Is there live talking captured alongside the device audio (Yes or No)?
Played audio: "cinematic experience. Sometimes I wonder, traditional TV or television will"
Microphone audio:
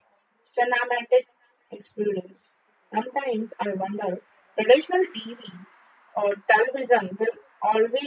No